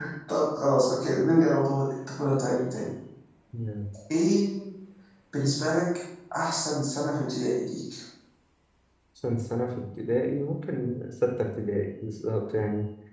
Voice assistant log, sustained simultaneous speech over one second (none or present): none